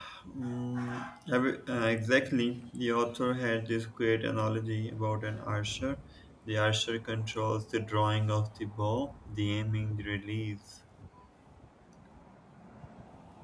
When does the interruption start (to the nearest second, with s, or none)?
none